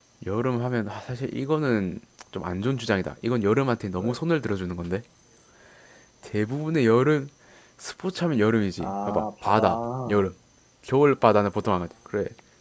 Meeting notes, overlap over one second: present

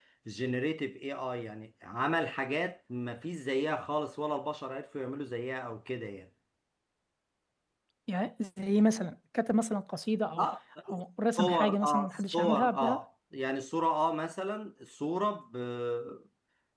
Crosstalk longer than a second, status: present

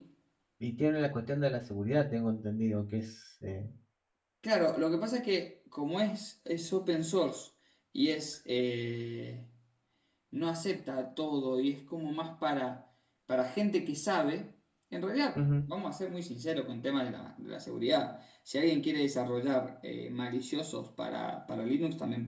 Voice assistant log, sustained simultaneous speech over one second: none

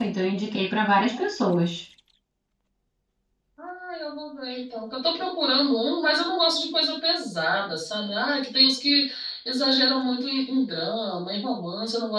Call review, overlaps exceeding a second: none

